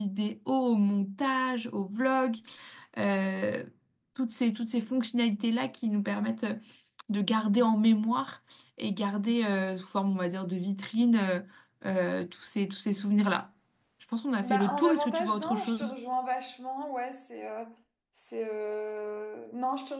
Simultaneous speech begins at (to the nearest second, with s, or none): 14 s